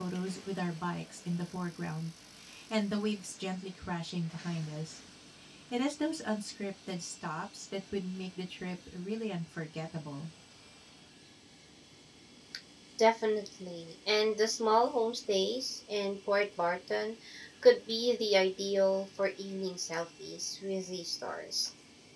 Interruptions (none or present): none